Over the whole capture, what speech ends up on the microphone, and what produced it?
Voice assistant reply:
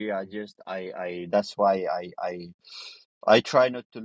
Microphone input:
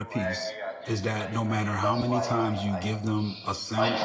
both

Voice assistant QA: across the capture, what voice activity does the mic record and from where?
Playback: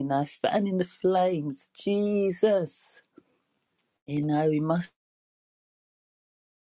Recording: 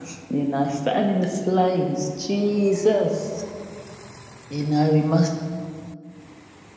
echo only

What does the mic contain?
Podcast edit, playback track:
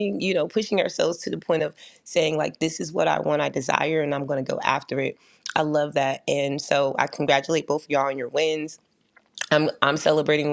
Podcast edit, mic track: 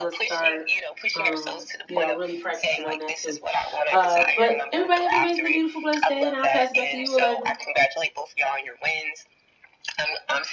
both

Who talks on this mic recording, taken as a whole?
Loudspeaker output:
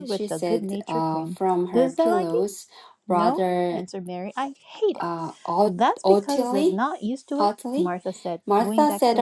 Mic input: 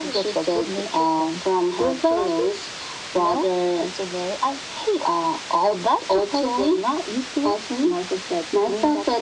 echo only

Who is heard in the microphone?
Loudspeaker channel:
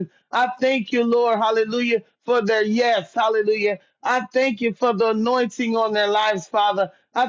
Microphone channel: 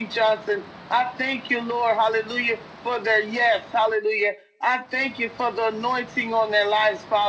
echo only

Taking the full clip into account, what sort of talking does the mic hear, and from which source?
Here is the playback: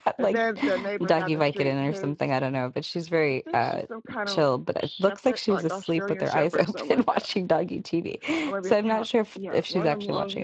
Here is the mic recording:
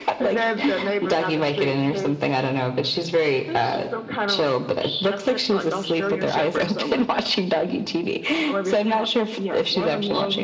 echo only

